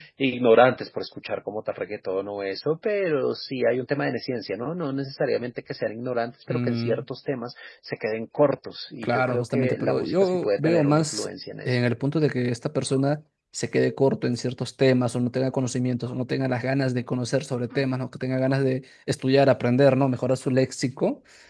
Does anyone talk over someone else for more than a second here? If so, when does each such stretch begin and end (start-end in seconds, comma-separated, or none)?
9.0-11.3